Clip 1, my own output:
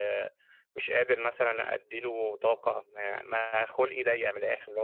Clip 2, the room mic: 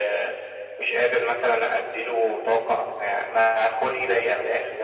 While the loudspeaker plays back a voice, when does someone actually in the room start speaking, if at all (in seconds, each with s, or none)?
none